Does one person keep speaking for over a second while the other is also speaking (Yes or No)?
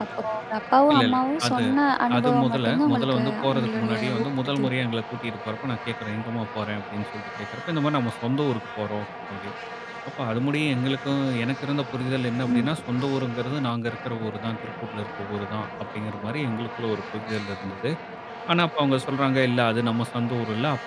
Yes